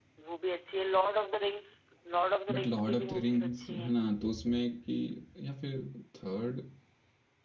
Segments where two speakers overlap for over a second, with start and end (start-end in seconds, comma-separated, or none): 2.5-3.9